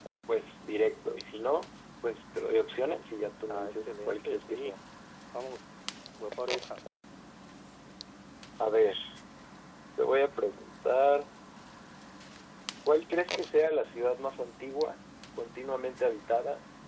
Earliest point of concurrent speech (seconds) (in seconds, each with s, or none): 3.5 s